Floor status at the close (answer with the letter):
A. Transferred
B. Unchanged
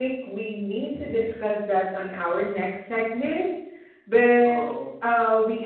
B